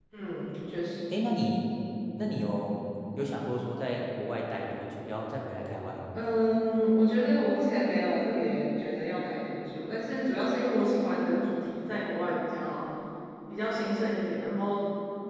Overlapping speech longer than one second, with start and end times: none

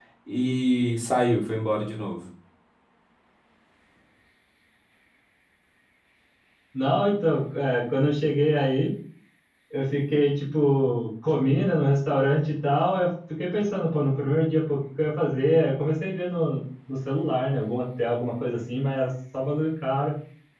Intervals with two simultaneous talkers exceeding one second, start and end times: none

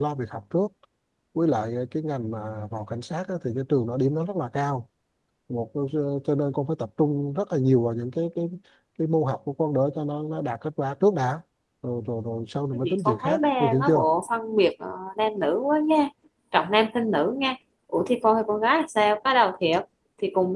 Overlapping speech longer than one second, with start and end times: 12.7-14.0

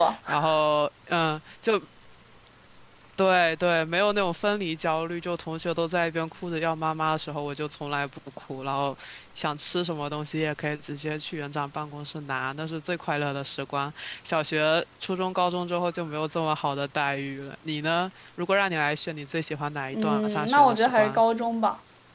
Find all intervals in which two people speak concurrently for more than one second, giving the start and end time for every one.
19.9-21.2

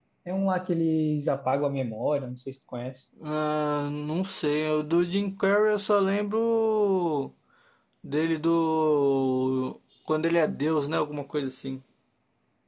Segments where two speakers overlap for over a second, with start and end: none

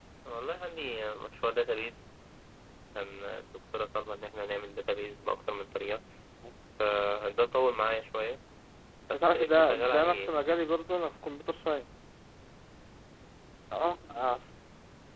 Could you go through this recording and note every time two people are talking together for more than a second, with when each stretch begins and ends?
9.1-10.3

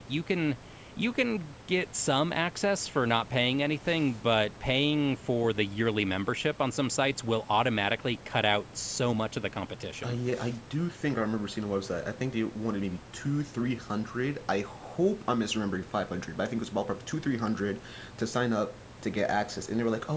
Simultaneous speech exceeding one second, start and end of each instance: none

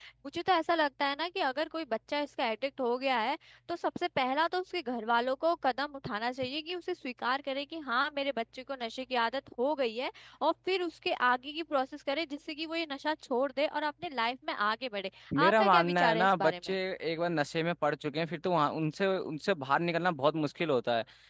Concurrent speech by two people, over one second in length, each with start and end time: 15.5-16.7

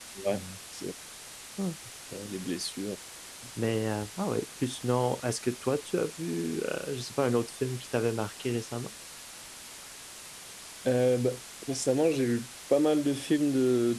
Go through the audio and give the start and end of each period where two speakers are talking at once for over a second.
none

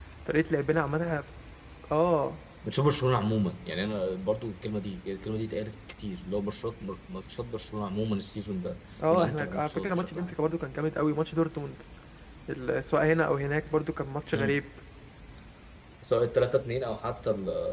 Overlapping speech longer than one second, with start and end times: 9.1-10.3

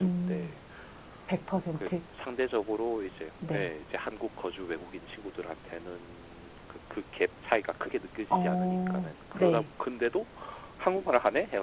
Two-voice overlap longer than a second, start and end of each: 8.3-9.6

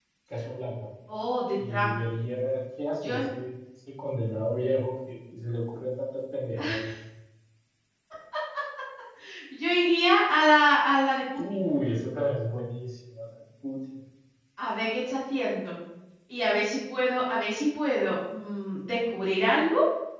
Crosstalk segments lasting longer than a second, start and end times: none

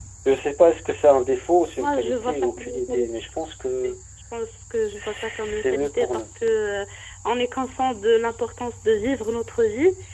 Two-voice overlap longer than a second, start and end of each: 1.8-3.1, 5.0-6.3

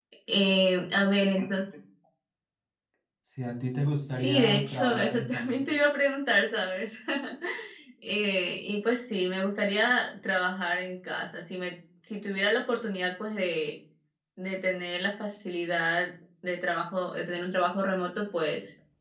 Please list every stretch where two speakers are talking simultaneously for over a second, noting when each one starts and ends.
4.1-5.7

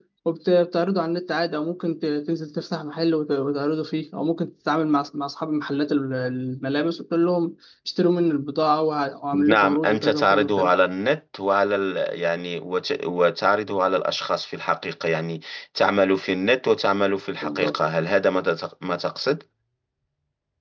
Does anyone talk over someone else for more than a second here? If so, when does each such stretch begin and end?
9.5-10.7

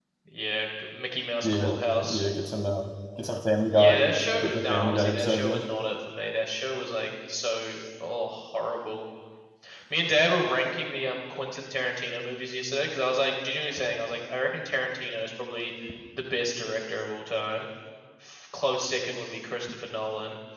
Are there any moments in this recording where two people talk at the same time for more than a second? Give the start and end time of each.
4.4-5.6

